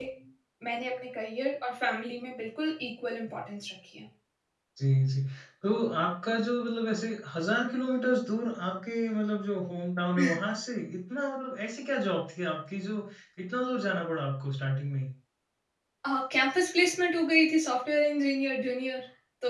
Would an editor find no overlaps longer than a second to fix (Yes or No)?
Yes